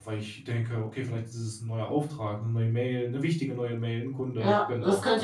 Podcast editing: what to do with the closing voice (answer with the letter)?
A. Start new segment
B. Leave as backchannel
A